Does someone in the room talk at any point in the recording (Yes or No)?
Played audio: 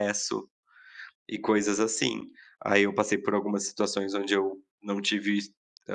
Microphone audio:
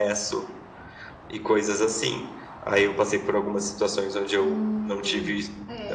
Yes